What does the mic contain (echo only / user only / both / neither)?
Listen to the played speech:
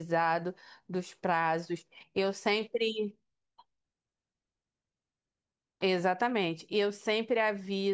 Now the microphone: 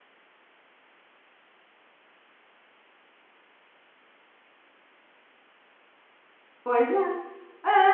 user only